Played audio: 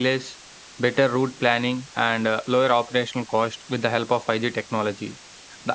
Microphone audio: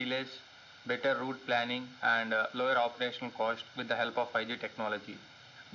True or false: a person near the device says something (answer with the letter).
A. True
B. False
B